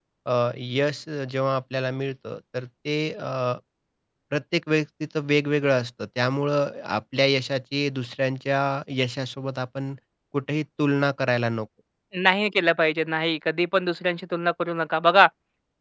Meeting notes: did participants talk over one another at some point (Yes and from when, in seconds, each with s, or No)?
No